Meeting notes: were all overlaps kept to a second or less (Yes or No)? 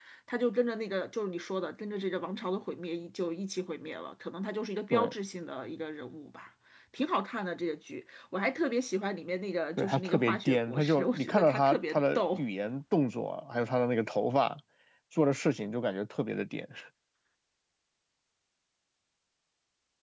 No